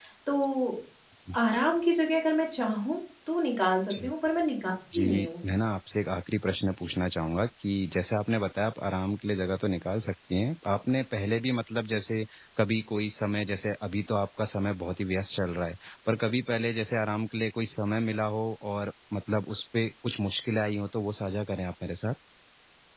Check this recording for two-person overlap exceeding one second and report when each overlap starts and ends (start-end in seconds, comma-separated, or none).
none